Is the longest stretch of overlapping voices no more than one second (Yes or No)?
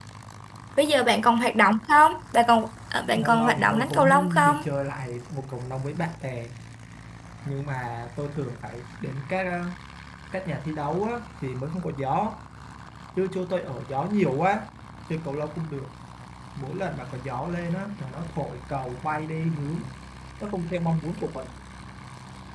No